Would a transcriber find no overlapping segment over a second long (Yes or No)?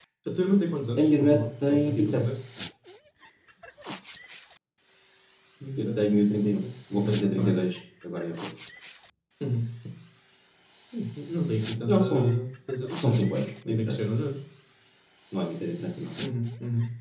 No